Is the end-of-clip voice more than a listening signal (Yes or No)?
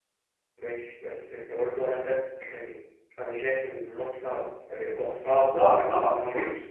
Yes